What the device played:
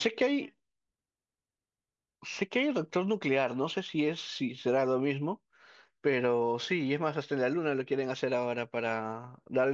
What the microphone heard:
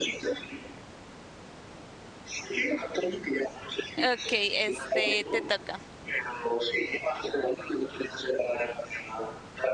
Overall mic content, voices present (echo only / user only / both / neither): both